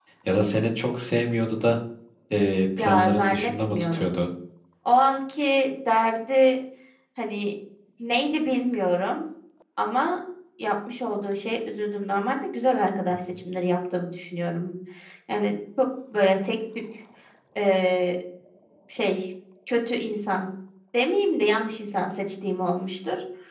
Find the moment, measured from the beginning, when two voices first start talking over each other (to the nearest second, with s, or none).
3 s